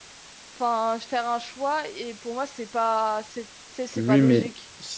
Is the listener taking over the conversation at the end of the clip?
Yes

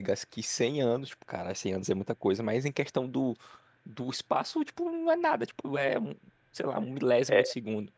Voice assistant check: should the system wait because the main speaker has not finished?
No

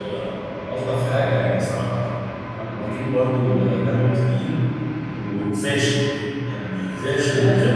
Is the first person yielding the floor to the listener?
Yes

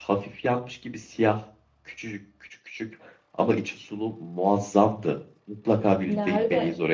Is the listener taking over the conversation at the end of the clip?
Yes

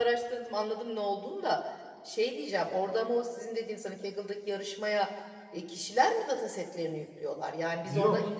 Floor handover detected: Yes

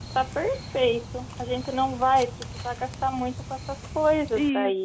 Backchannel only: No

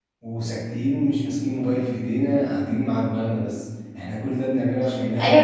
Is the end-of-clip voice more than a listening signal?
Yes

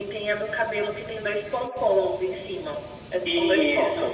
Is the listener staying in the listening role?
No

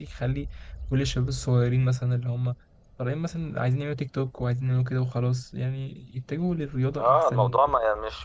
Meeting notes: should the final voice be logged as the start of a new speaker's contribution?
Yes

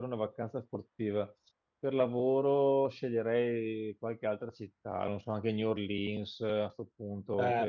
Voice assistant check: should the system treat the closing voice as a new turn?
No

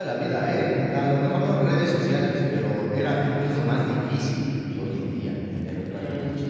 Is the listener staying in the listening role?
No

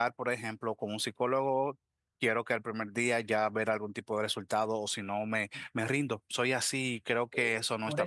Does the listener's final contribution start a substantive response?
Yes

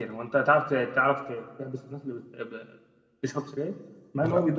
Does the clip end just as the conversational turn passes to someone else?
No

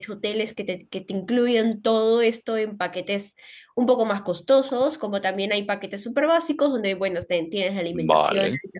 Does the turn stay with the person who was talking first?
Yes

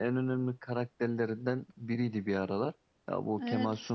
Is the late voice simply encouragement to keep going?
No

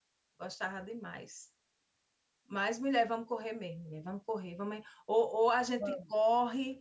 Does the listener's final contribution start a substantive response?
No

